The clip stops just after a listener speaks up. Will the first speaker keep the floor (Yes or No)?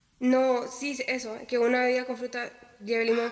No